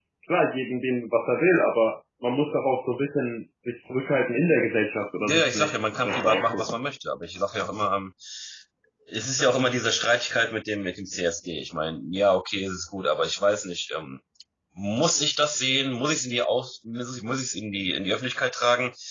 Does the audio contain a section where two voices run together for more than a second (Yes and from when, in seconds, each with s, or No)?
Yes, from 5.2 s